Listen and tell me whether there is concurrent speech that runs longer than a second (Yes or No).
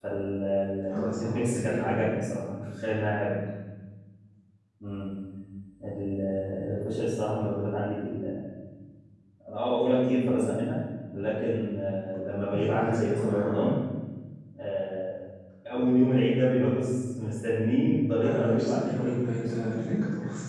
Yes